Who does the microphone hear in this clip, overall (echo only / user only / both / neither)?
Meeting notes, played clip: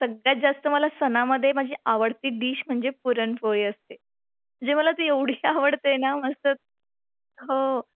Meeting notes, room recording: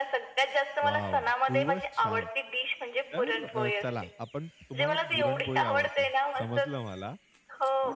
both